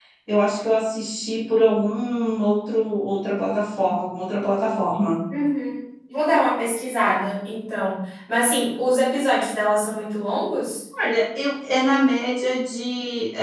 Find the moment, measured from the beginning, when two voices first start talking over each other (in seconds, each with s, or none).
none